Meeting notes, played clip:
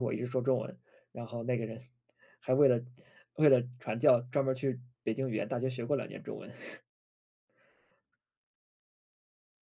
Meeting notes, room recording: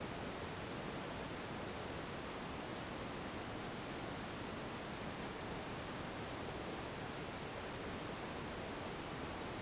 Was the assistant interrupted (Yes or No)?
No